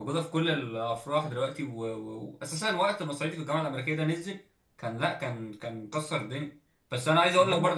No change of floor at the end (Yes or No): Yes